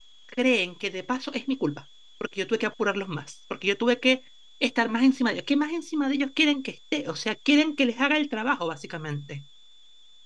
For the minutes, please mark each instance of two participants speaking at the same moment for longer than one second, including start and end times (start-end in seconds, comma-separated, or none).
none